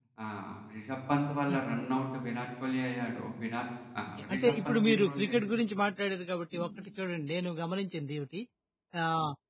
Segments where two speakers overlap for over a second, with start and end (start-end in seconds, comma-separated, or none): 4.2-5.6